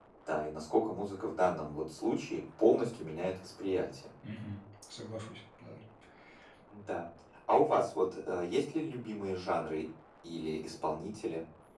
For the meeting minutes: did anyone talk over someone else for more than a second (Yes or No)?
No